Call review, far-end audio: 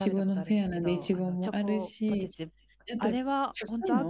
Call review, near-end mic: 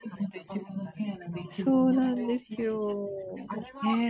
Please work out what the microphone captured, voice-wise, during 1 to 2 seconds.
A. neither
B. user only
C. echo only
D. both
D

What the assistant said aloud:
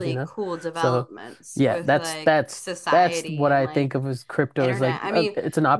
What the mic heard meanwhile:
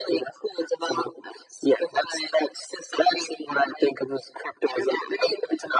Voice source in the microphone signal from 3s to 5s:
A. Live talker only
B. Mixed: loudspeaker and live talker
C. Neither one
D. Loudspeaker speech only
D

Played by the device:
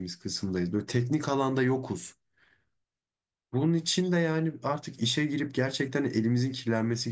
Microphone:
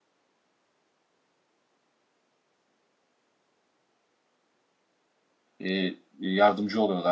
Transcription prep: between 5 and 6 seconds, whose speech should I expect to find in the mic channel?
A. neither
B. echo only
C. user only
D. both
C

